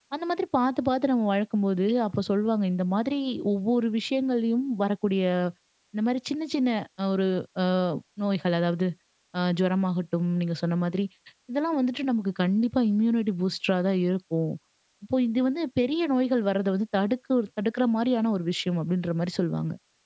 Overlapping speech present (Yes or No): No